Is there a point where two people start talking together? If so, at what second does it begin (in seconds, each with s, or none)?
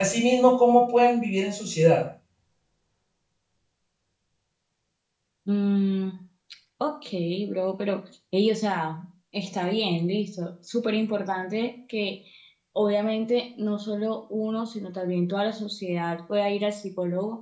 none